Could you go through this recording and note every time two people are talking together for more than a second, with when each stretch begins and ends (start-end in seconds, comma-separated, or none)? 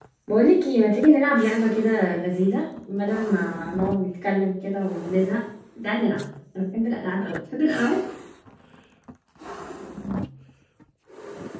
none